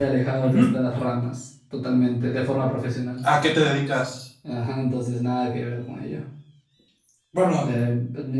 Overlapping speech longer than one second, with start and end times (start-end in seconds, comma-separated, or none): none